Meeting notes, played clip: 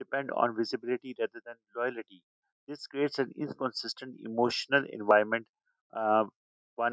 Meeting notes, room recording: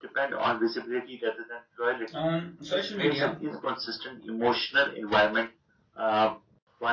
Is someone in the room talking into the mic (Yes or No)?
Yes